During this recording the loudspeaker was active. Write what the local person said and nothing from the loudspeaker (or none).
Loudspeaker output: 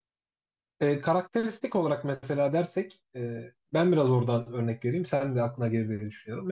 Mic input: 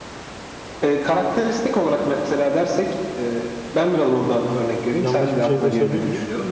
Yanlış bir şey de söylemeyeyim.